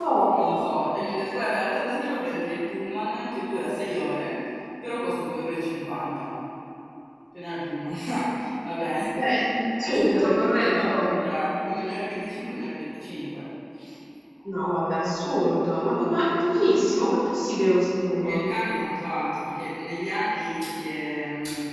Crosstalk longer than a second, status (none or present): present